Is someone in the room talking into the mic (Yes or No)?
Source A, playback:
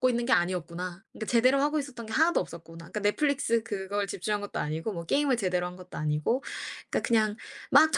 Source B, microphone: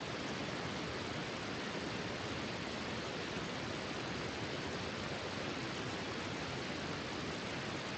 No